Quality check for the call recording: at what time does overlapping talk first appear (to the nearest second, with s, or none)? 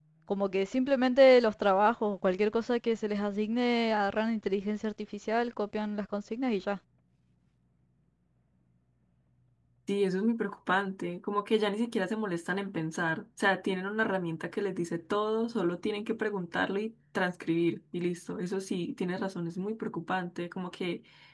none